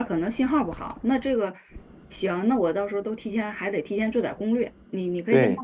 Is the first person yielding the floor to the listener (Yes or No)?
No